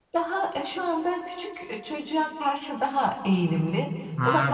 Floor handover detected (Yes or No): Yes